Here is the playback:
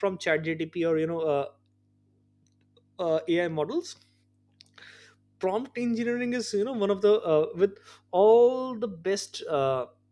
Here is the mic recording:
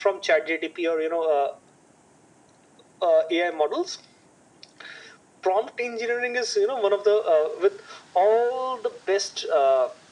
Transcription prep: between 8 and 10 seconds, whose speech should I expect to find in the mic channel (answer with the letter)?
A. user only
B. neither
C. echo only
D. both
C